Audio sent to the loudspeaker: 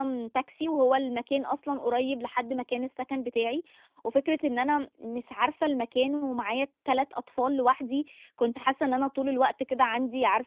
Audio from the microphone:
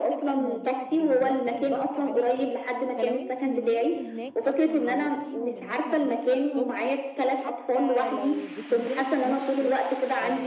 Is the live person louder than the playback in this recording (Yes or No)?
No